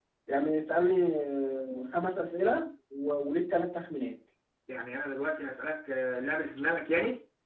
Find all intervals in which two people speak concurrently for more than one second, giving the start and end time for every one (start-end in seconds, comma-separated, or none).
none